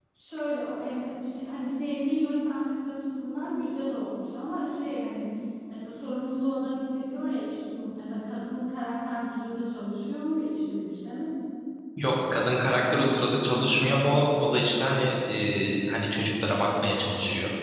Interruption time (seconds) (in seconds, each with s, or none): none